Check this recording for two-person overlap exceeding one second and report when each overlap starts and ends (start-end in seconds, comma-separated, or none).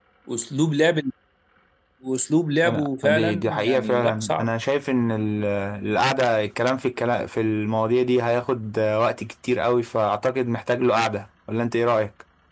2.6-4.5